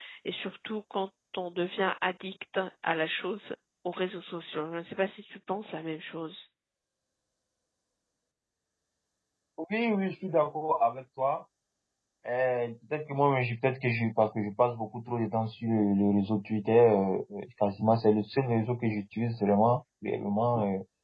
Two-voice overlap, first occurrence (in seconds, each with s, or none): none